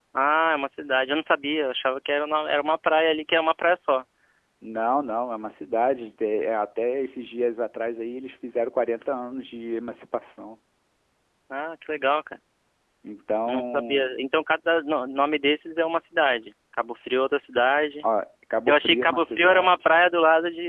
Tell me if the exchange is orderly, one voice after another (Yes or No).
No